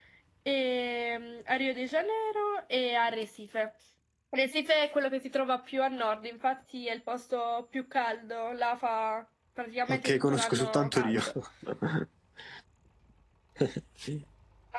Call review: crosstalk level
present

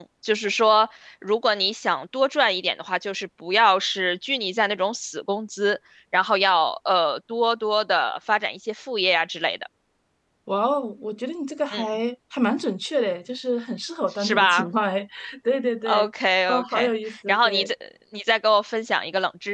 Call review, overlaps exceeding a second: present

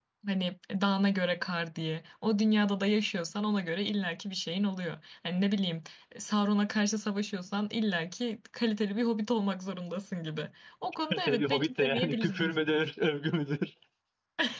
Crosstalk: present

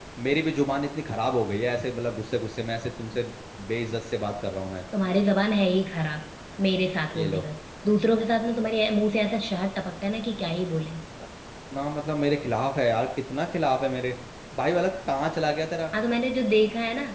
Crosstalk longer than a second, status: none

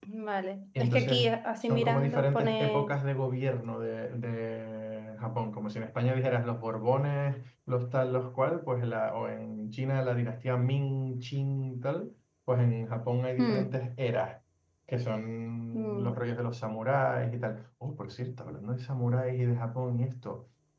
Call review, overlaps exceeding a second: present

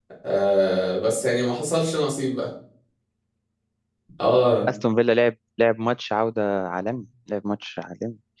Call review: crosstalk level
none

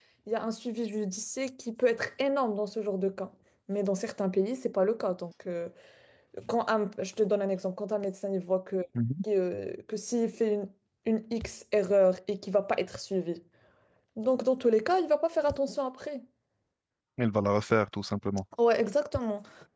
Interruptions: none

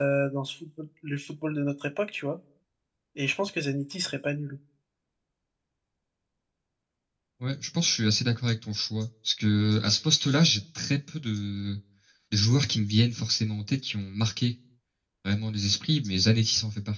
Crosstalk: none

